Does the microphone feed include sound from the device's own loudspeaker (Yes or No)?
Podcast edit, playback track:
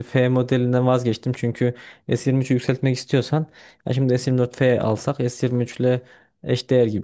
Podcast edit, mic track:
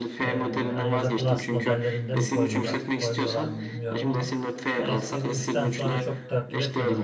Yes